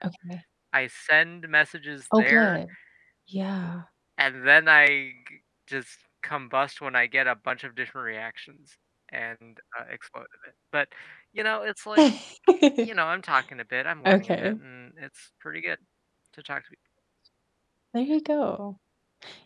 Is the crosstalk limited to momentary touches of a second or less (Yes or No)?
Yes